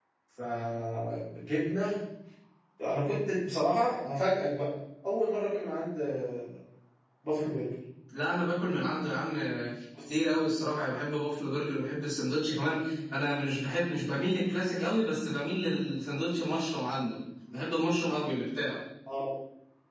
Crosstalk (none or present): none